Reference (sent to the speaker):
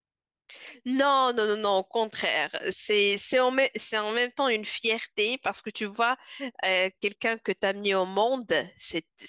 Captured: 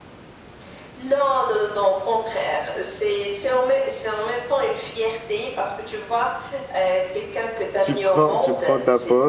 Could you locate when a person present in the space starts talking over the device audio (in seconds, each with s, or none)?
7.8 s